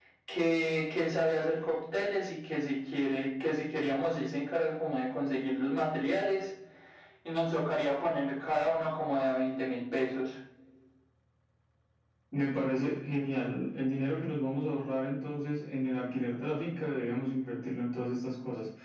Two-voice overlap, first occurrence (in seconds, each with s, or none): none